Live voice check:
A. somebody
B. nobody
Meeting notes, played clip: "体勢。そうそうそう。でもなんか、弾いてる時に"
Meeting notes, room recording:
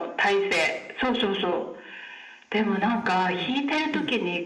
A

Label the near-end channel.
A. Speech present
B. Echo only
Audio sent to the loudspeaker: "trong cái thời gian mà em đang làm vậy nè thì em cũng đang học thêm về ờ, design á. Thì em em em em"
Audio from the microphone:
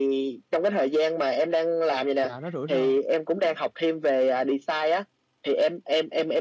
A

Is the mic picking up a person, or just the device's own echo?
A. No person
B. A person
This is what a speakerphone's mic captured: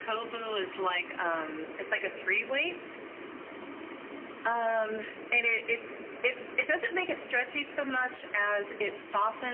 A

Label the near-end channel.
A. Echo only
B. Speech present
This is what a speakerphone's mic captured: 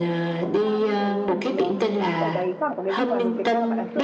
B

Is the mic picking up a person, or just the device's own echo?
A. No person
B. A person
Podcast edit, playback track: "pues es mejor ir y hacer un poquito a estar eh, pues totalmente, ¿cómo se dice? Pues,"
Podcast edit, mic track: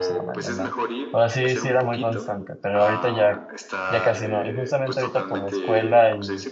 B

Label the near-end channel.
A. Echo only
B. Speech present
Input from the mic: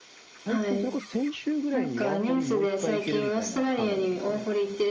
B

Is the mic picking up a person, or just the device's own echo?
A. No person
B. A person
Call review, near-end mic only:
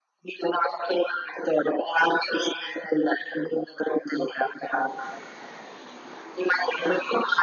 A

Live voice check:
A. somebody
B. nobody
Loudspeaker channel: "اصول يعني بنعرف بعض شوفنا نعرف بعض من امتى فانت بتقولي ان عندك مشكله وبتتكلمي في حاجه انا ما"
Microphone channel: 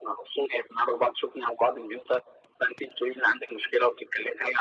B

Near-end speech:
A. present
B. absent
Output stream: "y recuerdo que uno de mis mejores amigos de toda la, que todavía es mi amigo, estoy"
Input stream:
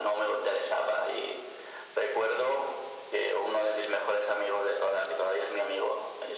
B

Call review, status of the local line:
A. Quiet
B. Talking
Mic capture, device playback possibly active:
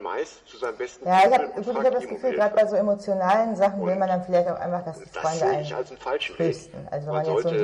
B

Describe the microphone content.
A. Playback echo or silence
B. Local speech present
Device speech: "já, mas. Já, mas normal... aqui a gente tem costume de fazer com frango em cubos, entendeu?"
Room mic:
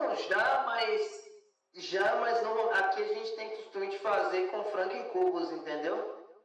A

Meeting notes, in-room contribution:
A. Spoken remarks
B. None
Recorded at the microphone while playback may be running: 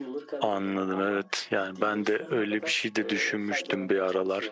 A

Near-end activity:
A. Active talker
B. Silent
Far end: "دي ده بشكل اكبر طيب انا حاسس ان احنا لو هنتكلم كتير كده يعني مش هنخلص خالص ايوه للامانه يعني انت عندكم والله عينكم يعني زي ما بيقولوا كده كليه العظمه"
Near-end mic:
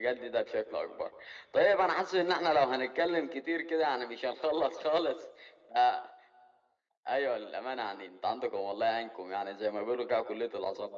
B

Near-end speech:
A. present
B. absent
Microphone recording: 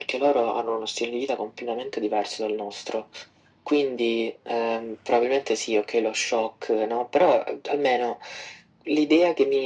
B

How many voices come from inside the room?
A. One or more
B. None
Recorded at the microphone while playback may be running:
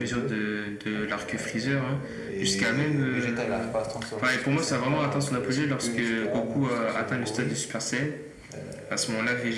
B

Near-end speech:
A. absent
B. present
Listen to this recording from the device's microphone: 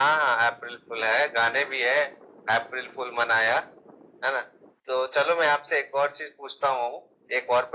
A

